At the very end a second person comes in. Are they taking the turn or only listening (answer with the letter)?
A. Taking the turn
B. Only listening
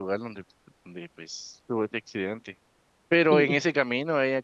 B